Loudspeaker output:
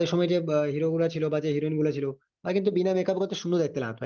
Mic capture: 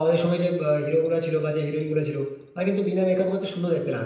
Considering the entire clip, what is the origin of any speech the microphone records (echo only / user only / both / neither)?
echo only